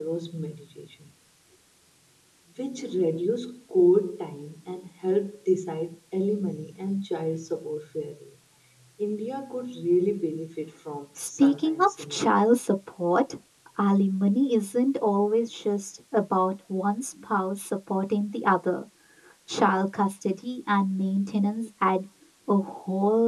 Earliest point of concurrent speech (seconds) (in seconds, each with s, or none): 11.2 s